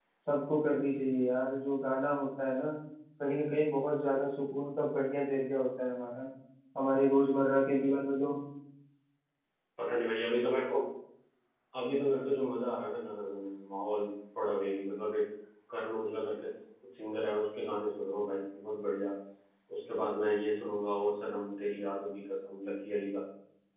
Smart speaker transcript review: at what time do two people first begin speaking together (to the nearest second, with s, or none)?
none